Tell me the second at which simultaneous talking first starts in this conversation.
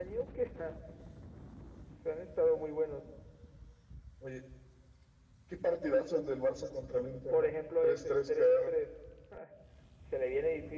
7 s

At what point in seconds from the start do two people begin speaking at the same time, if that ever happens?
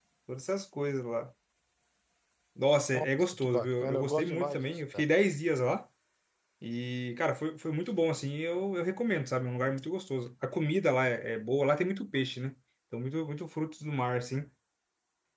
3 s

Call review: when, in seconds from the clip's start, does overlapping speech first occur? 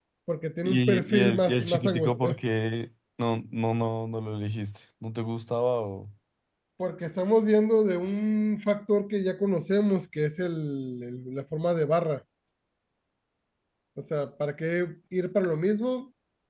1 s

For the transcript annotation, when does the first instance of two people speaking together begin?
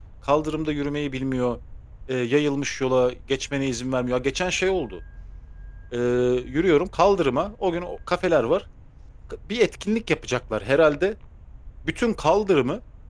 none

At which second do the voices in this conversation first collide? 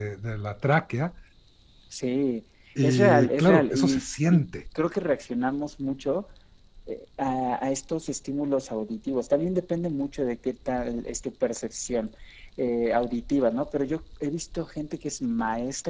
3 s

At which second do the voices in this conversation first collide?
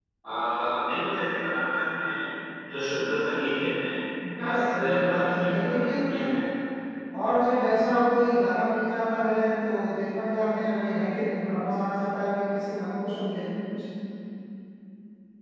4 s

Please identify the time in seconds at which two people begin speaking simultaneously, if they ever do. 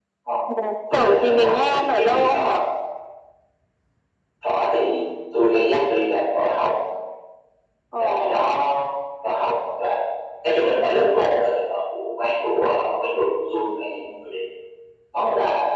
1 s

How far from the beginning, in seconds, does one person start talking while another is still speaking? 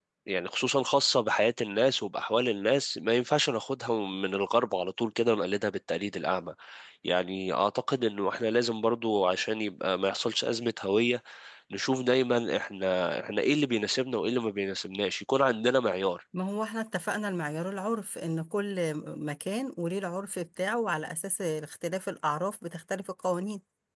none

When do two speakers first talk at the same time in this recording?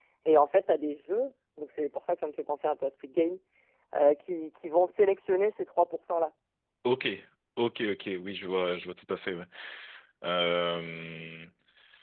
none

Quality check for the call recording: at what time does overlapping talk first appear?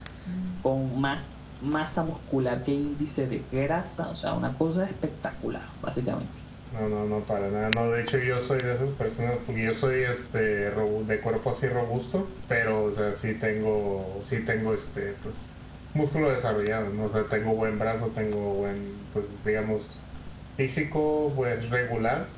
none

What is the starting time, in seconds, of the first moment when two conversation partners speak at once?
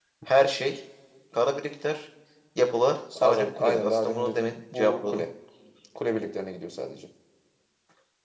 3 s

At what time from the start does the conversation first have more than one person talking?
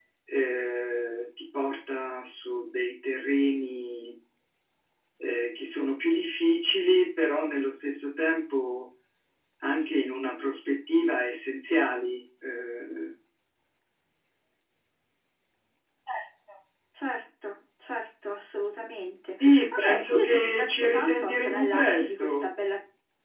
19 s

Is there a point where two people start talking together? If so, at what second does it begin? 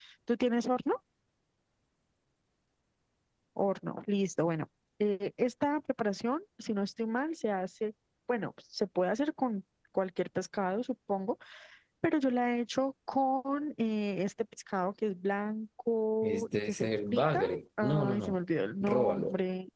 16 s

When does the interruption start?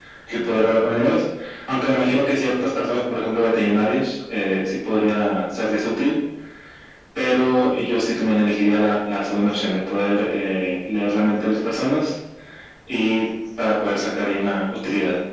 none

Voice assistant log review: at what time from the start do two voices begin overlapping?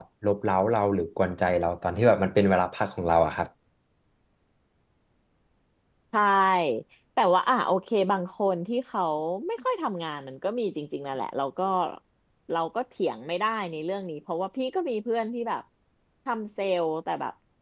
none

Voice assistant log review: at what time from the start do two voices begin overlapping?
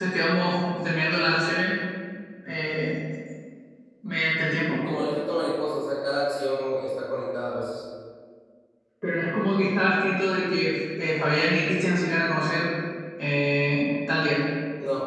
none

